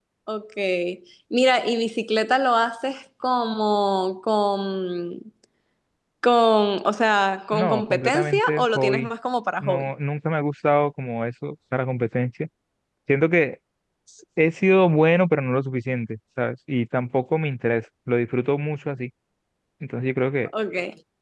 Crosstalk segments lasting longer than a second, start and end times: 7.5-9.1

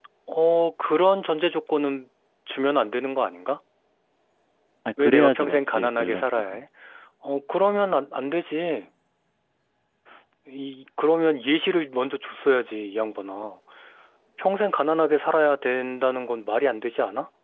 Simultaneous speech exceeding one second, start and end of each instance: 5.0-6.6

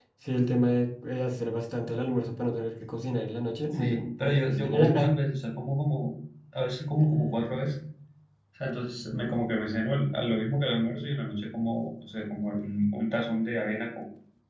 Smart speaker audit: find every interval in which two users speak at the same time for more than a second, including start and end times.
3.7-5.1

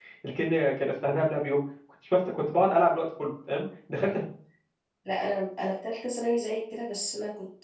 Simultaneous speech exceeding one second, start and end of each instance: none

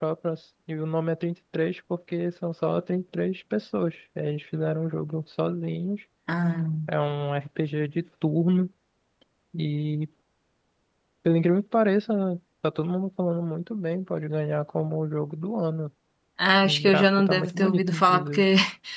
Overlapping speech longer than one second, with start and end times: 16.6-18.4

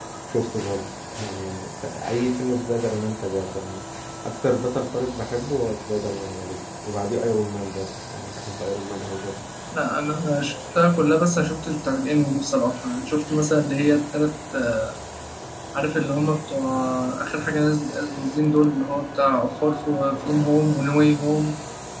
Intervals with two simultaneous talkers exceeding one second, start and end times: none

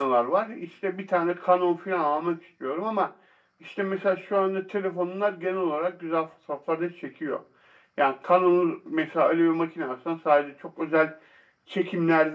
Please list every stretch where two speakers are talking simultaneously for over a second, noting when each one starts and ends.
none

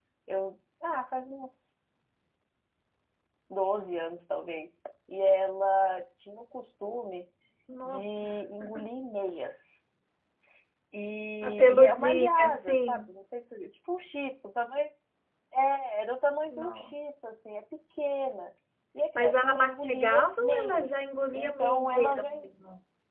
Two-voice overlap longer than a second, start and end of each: 11.4-13.0, 19.2-22.5

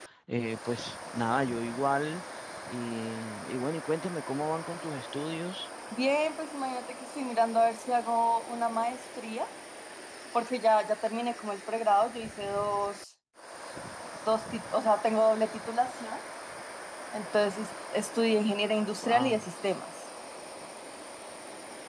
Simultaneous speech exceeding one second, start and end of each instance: none

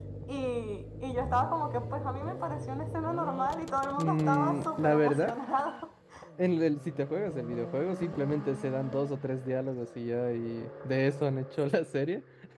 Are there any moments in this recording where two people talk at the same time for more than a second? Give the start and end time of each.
3.9-5.4

